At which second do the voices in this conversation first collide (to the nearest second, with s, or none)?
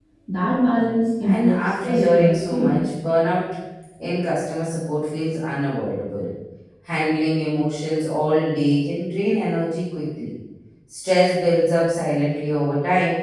1 s